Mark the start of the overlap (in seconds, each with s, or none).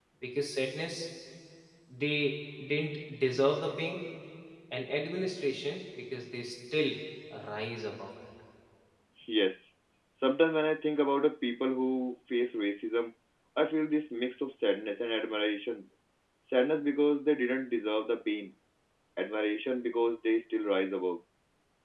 none